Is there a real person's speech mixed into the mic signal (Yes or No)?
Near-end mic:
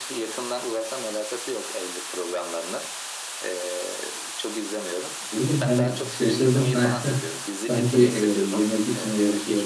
Yes